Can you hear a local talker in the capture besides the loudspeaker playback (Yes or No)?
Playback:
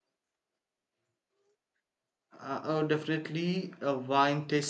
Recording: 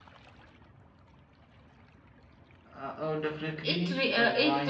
Yes